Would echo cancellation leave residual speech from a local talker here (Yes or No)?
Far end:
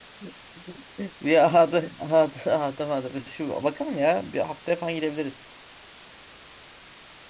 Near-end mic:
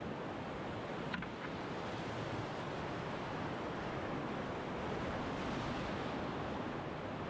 No